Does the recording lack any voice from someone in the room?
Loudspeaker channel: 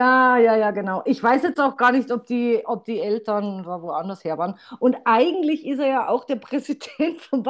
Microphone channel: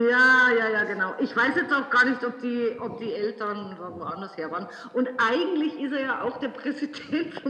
Yes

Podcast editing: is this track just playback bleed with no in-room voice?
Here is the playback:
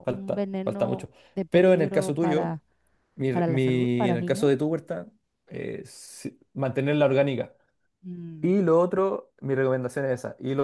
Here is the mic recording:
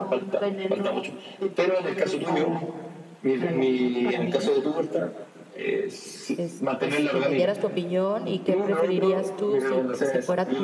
No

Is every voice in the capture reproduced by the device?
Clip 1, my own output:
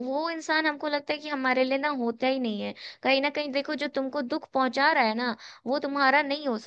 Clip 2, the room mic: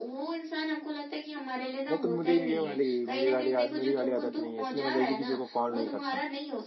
No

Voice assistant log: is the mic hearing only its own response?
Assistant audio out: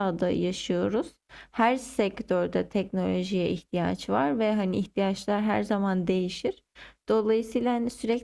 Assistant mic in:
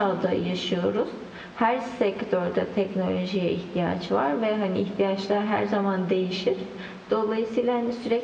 Yes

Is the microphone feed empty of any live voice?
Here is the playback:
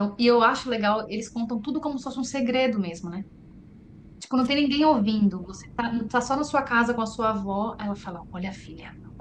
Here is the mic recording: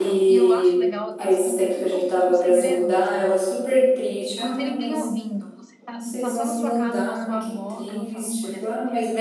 No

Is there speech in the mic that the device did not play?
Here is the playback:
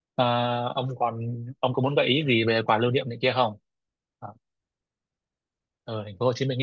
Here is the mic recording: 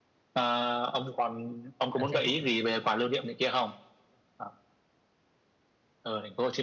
Yes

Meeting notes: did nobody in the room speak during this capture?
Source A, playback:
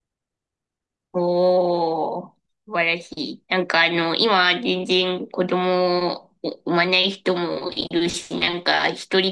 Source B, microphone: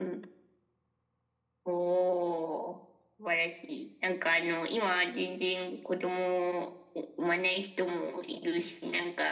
Yes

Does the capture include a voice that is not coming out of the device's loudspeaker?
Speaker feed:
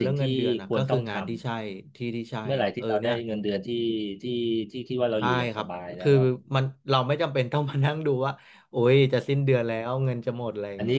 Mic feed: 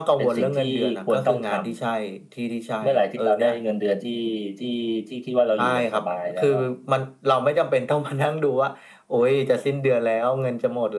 No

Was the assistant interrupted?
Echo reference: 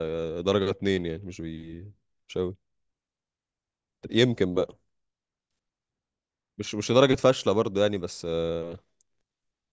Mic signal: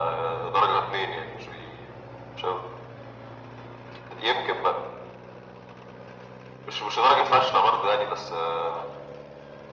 No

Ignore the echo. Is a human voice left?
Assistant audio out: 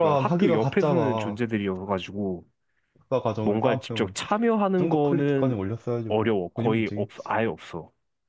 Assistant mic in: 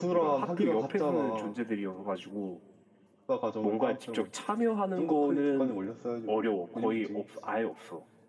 No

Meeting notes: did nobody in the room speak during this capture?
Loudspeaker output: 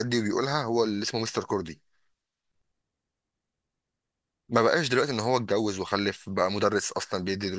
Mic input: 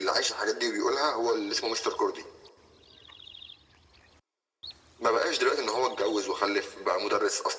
Yes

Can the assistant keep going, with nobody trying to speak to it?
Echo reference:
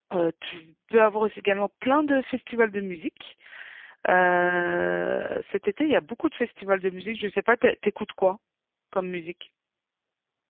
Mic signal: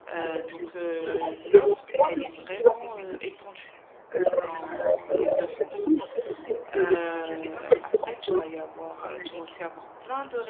No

